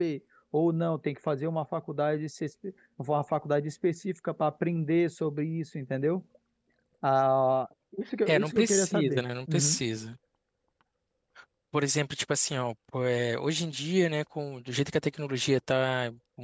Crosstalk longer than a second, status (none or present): present